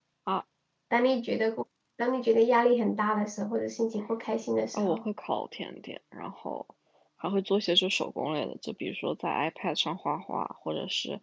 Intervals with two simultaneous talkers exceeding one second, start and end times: none

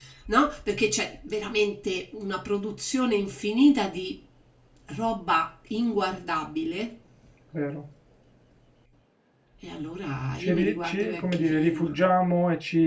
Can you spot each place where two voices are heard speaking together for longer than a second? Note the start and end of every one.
10.4-11.9

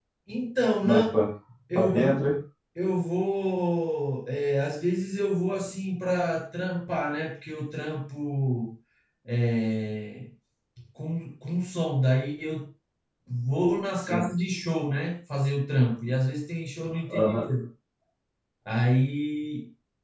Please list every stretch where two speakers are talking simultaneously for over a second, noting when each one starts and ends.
none

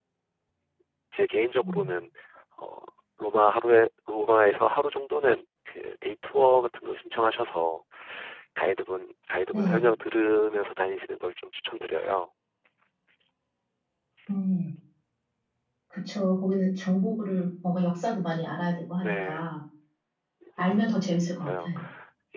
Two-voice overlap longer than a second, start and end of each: none

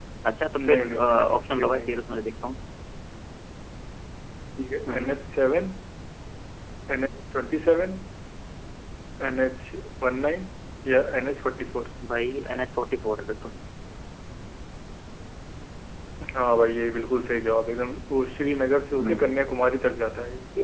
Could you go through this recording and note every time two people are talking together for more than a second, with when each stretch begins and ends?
0.7-2.0

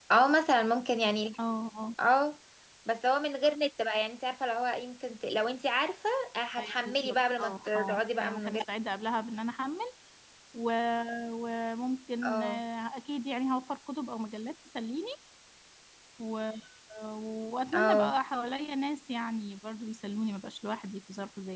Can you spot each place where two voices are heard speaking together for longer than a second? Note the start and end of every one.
6.6-8.6

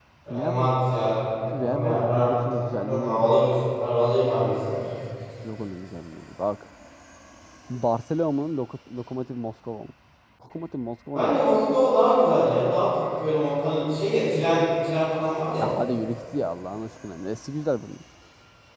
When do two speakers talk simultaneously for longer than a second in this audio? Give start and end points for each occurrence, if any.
1.6-3.3

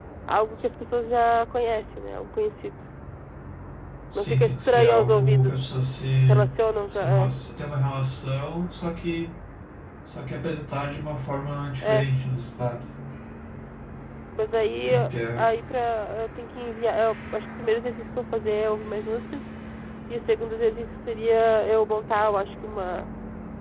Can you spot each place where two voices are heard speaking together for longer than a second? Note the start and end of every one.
4.2-5.5

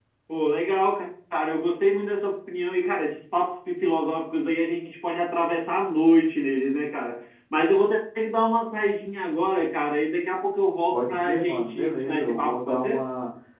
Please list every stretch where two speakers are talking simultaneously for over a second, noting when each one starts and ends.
10.9-13.0

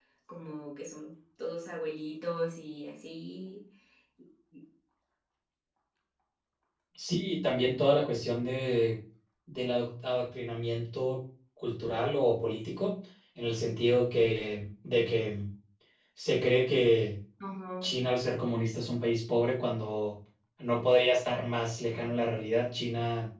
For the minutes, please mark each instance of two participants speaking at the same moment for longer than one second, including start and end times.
none

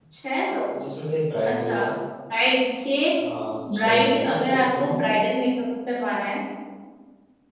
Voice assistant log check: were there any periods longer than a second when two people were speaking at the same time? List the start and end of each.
3.7-5.0

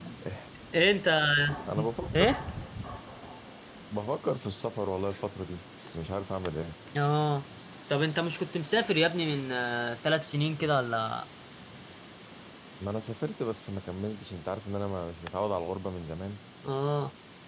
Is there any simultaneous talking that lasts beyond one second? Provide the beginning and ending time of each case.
none

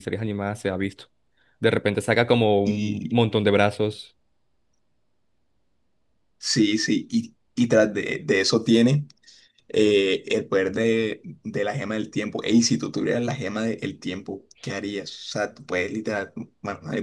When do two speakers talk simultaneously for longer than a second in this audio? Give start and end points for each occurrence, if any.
none

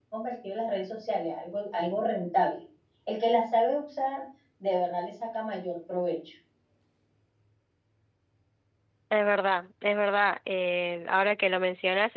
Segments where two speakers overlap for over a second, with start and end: none

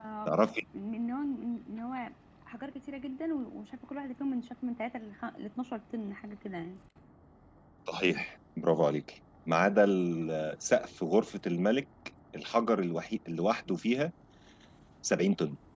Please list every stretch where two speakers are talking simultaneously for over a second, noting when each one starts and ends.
none

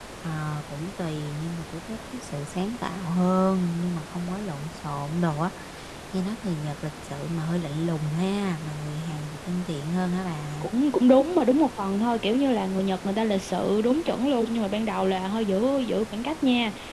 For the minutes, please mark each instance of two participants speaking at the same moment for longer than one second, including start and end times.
none

